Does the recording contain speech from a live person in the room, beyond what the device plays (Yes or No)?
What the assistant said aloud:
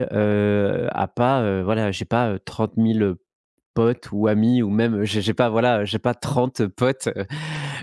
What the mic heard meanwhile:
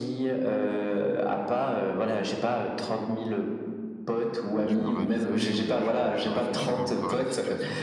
Yes